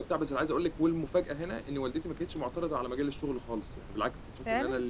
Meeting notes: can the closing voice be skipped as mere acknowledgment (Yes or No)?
Yes